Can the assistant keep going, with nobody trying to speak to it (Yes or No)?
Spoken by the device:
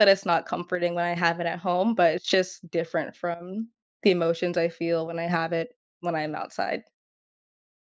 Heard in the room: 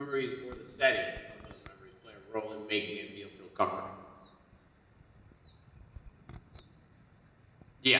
No